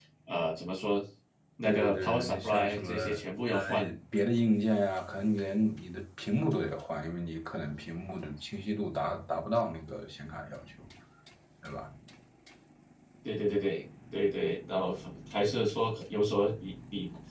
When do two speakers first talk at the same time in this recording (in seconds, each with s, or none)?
1.6 s